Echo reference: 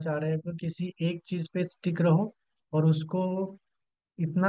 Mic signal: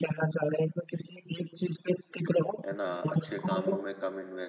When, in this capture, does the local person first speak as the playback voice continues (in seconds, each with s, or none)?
2.6 s